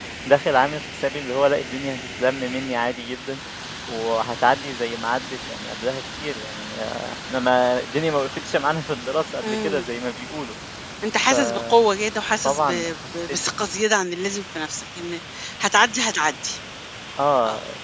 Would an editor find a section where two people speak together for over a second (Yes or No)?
No